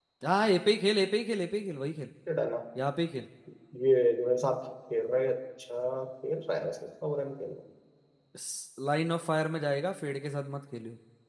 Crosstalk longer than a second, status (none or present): none